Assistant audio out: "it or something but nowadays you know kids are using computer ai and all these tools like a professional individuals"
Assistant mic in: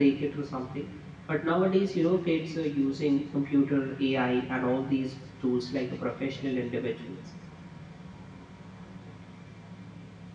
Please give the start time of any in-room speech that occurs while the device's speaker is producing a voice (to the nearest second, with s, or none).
none